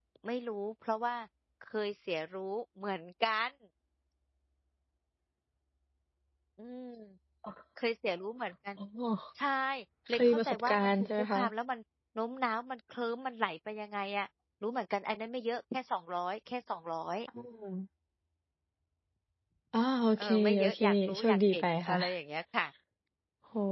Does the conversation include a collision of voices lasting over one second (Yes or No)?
Yes